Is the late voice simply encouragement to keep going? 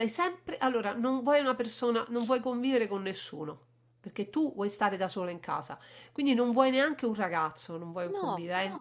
Yes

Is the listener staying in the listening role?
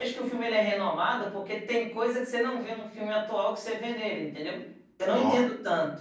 Yes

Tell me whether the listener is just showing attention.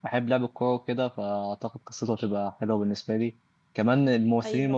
Yes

